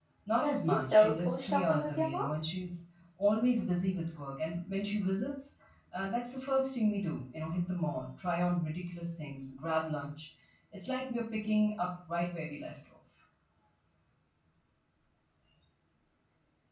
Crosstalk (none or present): present